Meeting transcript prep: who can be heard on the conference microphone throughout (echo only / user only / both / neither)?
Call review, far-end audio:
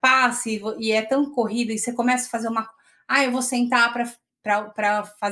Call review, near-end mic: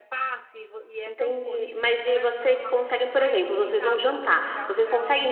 both